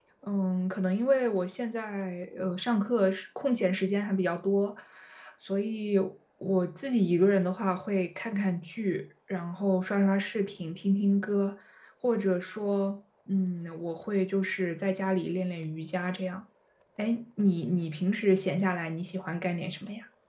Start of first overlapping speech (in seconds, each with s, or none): none